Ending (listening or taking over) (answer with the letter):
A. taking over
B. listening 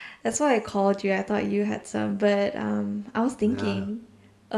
B